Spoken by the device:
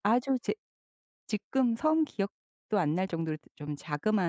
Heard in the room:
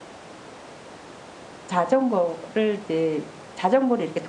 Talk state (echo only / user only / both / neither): user only